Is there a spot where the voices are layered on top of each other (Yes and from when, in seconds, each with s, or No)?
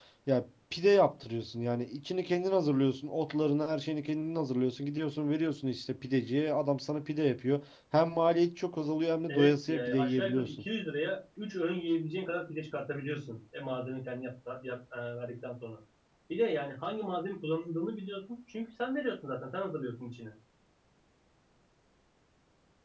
Yes, from 9.3 s